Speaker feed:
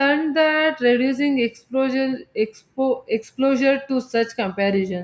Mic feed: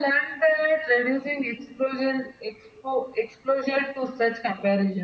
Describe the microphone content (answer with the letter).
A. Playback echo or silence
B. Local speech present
A